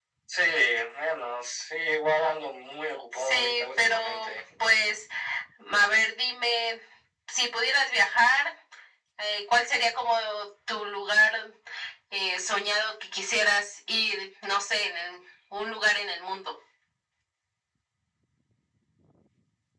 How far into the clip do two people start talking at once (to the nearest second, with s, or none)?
3 s